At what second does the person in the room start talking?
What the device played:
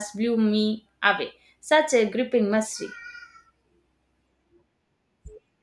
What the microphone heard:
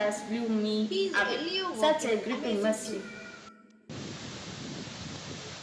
0.8 s

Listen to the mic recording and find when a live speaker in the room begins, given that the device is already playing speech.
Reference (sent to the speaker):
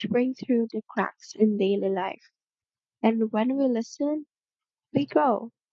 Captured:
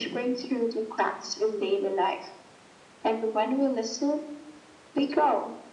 none

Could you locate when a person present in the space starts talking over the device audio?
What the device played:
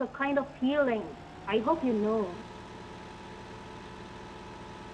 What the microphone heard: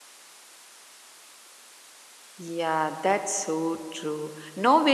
2.4 s

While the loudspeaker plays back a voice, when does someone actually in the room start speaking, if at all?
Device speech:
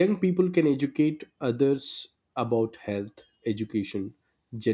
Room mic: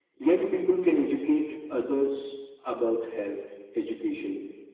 none

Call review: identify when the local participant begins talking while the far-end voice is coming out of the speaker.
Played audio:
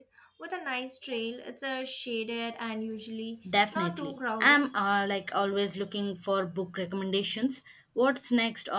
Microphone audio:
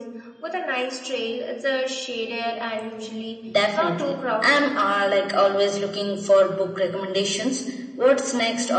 none

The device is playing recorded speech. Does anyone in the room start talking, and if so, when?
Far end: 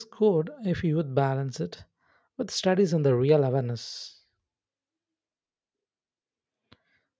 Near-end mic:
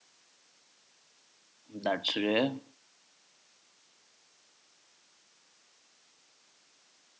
1.7 s

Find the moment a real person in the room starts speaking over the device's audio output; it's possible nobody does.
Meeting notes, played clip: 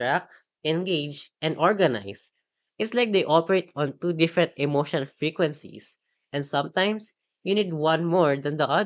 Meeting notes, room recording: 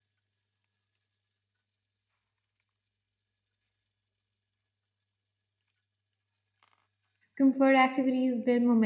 7.4 s

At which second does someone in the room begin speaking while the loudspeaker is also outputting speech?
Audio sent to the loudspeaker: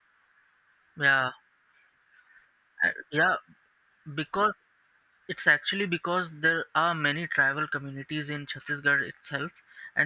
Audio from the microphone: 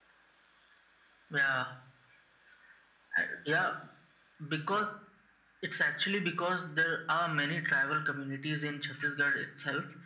none

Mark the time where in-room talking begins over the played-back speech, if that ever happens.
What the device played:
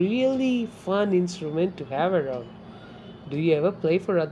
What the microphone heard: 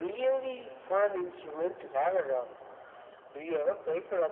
none

